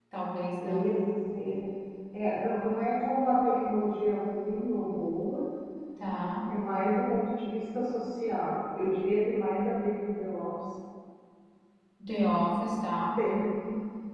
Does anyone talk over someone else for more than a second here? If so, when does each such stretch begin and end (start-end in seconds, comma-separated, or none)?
none